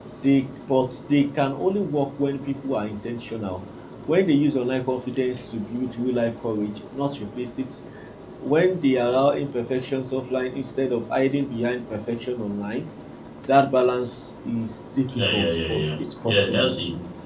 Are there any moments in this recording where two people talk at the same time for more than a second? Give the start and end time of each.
15.3-16.7

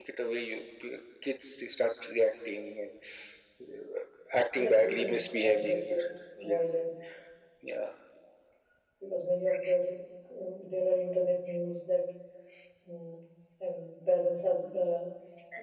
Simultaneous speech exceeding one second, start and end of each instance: 4.5-5.8

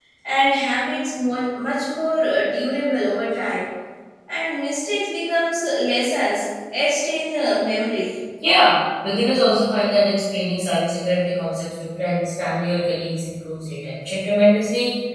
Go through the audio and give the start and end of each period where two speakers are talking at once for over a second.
none

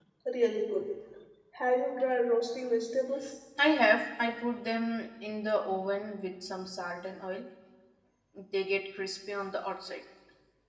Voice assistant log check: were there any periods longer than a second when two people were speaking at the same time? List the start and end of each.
none

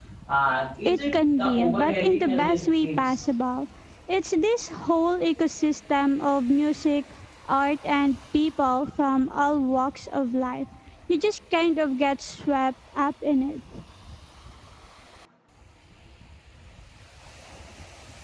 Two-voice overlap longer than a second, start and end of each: 0.9-3.2

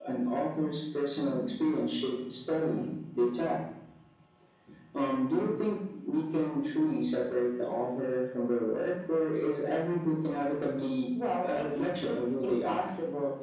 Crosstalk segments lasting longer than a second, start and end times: 11.5-12.9

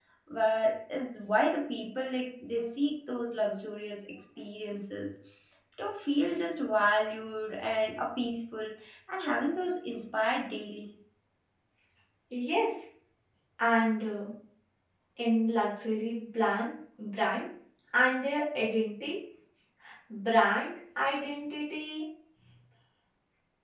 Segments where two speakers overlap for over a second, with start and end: none

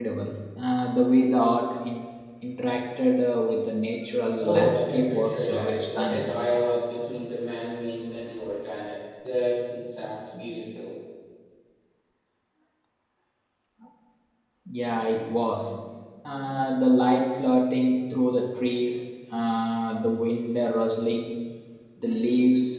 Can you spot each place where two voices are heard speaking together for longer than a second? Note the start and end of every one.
4.4-6.3

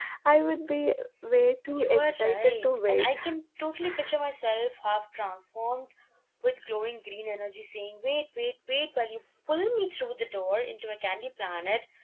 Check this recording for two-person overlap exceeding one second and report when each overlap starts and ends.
1.8-3.1

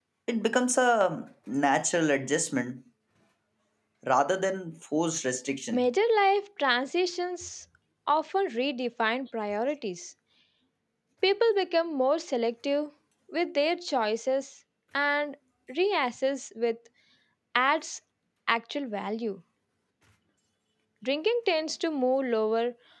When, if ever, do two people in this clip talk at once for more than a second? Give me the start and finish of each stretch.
none

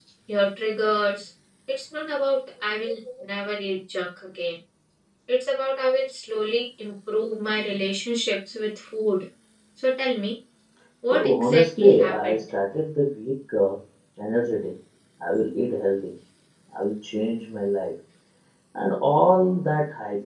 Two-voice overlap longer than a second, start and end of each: 11.1-12.4

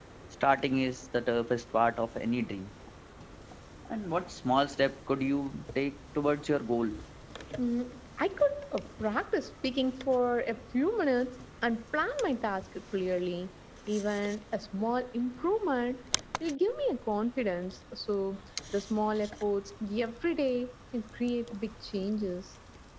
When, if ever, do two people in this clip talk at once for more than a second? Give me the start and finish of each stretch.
none

